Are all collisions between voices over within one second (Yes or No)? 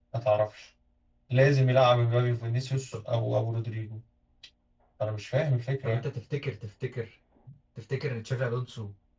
Yes